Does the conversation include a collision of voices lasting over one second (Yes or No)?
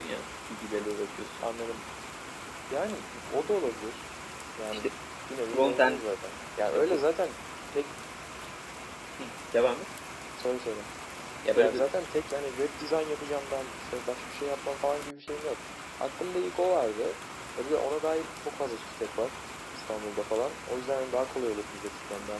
No